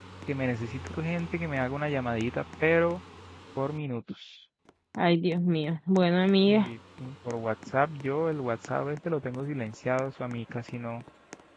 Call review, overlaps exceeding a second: none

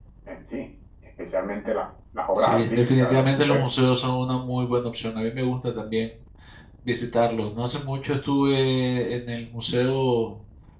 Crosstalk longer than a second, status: present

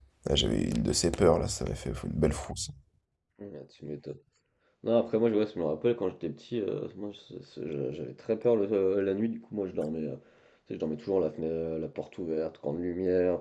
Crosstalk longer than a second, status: none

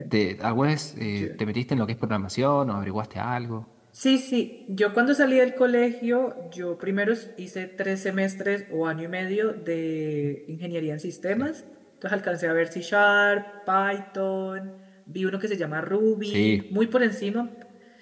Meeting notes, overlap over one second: none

